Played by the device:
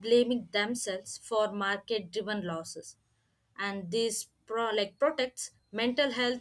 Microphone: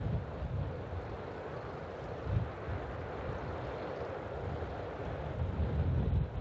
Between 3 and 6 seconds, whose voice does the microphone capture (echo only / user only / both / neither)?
neither